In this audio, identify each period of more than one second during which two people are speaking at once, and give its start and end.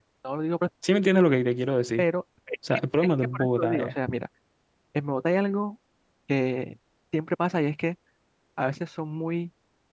2.7-3.9

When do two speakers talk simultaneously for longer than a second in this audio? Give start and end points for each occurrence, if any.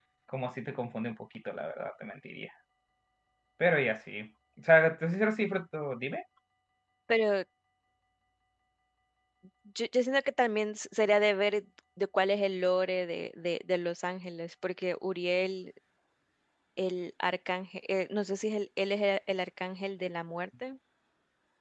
none

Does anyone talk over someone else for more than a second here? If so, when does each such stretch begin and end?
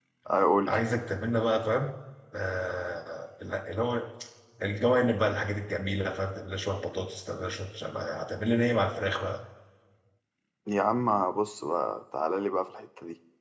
none

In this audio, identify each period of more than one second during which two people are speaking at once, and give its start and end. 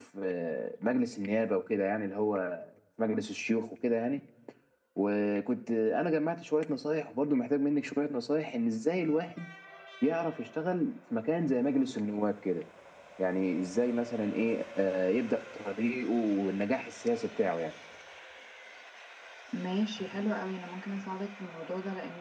none

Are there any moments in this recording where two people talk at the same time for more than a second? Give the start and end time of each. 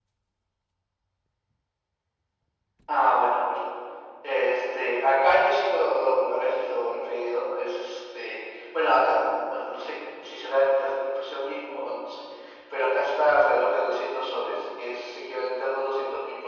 none

